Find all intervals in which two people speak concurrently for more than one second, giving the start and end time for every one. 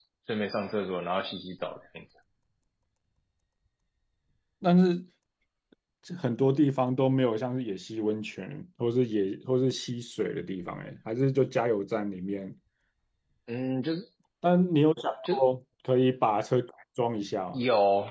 none

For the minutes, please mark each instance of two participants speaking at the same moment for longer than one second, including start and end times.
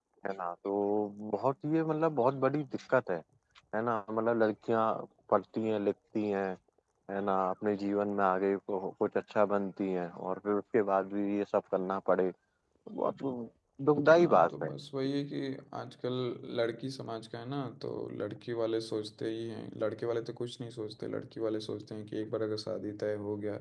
none

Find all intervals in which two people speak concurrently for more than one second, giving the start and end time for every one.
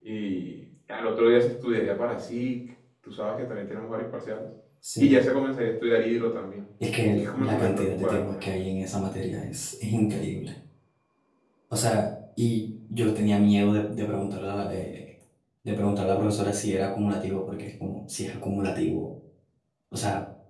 7.2-8.4

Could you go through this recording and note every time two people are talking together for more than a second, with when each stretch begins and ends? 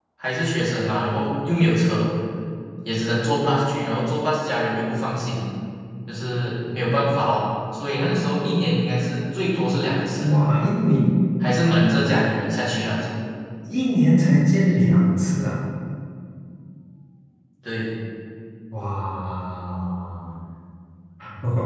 none

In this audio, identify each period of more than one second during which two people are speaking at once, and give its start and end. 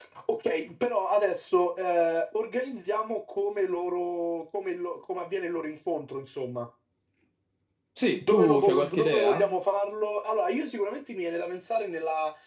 8.2-9.6

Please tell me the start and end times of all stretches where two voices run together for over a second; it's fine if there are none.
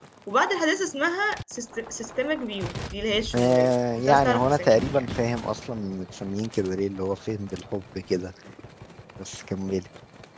3.4-5.1

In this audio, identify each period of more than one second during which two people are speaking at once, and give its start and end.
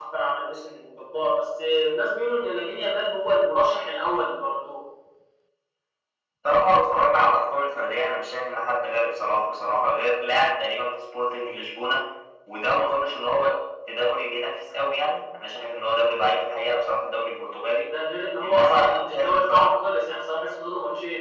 18.4-19.7

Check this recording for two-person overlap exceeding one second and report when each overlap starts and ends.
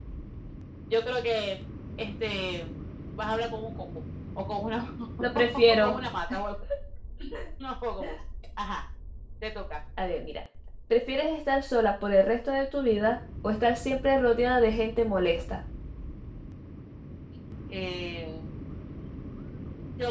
none

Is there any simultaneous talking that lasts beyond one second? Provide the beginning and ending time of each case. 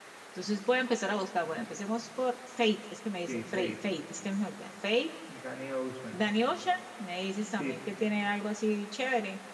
none

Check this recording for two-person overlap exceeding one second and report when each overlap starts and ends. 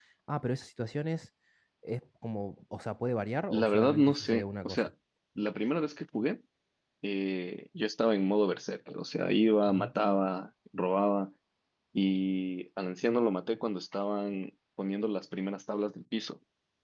3.5-4.8

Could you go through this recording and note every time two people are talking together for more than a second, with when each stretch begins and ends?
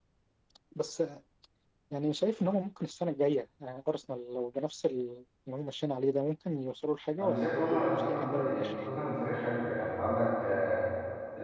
7.2-8.7

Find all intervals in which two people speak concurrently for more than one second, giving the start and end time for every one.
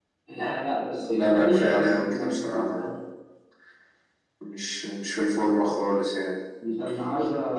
1.1-3.0

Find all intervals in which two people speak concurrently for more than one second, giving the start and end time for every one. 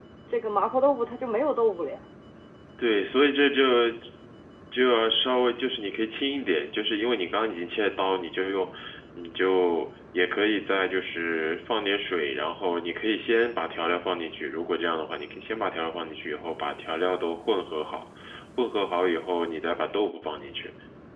none

